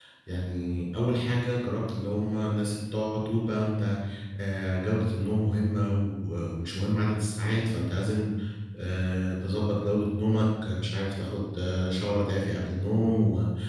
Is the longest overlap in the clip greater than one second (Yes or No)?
No